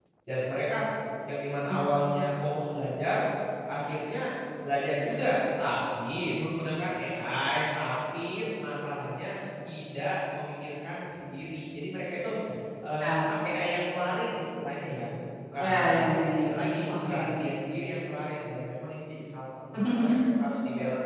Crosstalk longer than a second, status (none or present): present